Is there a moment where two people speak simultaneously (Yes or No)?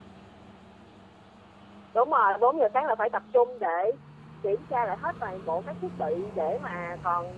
No